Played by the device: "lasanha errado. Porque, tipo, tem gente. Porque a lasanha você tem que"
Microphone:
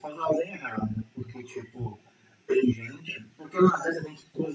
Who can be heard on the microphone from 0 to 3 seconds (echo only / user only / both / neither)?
echo only